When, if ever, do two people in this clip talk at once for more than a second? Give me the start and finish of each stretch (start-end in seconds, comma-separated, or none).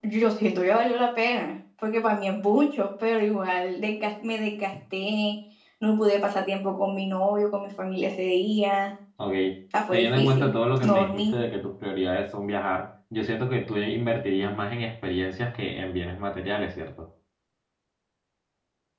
9.9-11.4